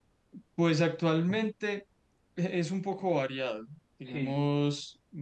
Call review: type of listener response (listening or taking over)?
listening